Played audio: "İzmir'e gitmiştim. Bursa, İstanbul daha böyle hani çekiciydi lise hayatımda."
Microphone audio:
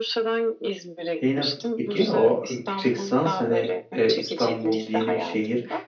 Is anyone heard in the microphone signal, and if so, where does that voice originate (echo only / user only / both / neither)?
both